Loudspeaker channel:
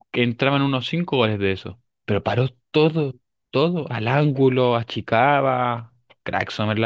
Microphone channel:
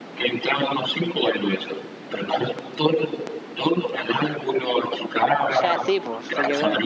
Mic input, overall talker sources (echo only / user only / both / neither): both